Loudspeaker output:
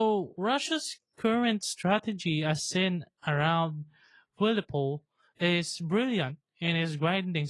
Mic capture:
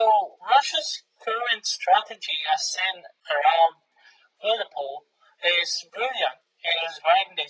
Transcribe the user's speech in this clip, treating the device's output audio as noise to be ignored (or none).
none